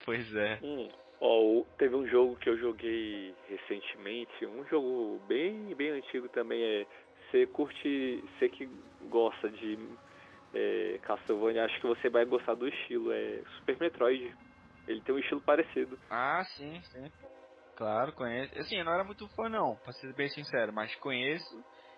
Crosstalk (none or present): none